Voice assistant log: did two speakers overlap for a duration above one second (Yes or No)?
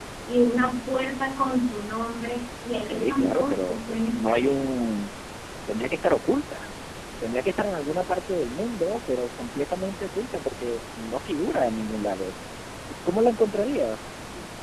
Yes